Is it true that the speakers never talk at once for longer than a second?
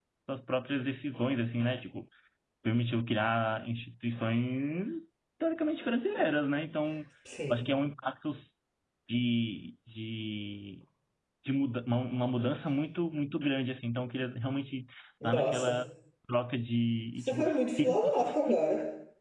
No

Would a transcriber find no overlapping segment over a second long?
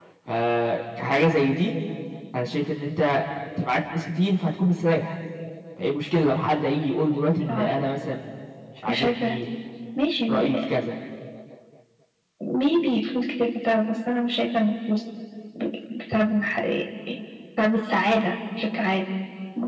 Yes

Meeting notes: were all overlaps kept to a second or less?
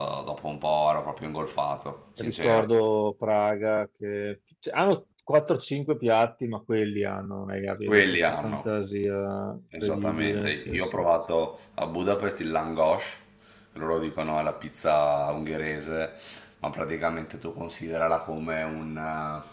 No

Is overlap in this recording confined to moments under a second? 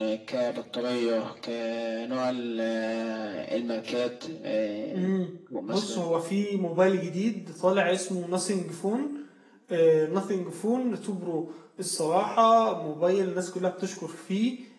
Yes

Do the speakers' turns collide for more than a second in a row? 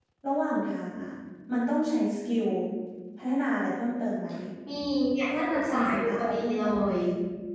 Yes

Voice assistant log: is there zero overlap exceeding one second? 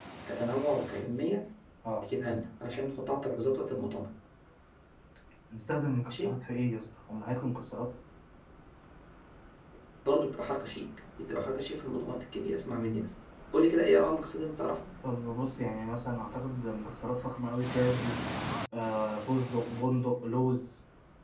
Yes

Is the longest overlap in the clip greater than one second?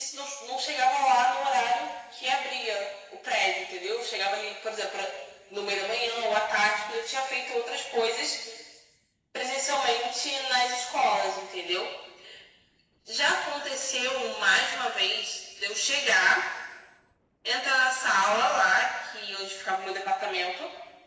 No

